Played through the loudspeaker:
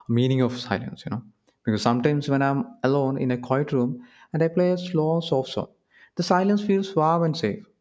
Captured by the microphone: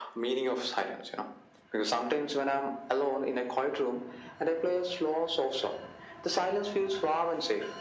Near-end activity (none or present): none